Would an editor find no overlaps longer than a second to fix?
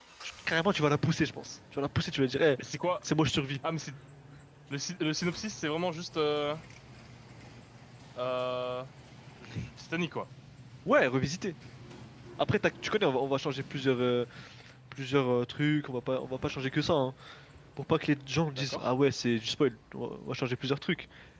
Yes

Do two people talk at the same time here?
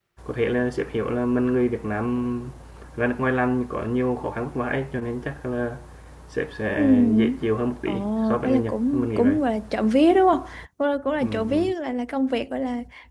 Yes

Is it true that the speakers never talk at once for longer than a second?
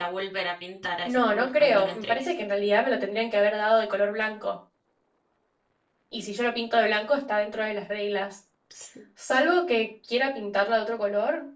No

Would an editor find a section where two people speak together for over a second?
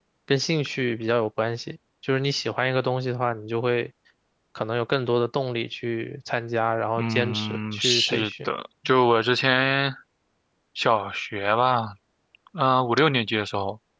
Yes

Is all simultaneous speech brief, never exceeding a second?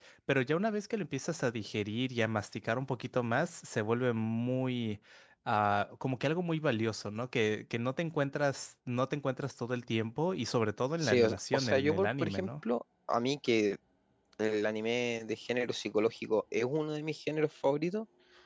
No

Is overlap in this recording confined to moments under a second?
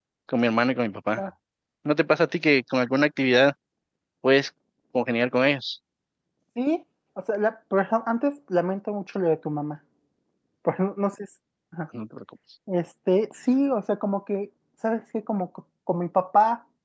Yes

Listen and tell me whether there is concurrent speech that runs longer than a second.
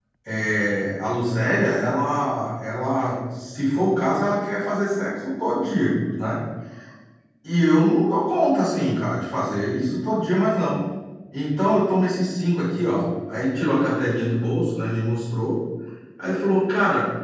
No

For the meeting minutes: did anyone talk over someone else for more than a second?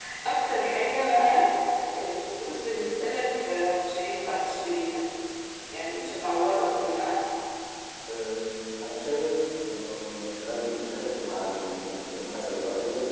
No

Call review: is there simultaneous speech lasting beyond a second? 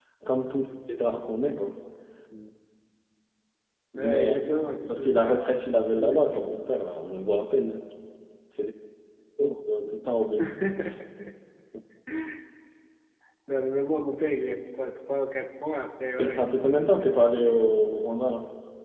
Yes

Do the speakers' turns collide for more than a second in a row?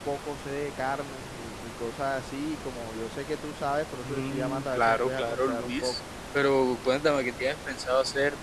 Yes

